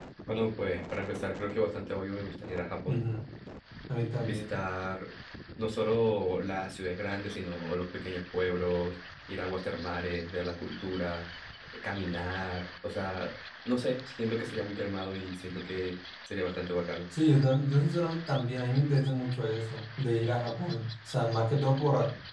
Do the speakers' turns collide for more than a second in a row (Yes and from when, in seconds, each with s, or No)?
No